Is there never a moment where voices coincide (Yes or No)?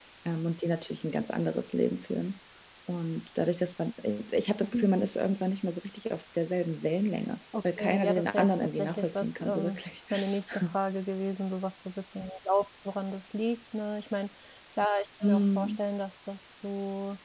No